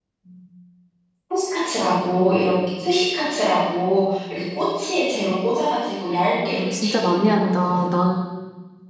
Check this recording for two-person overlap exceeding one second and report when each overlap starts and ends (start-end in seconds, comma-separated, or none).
6.5-7.8